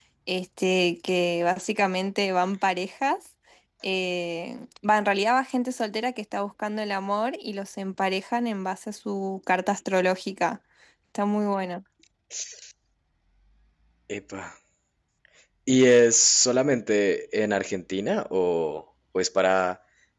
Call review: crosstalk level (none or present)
none